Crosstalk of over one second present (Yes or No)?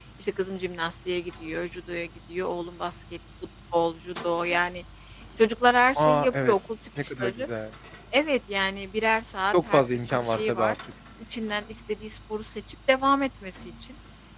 Yes